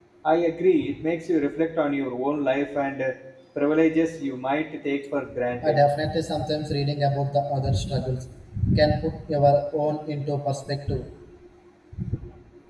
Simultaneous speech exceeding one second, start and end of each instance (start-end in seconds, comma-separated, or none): none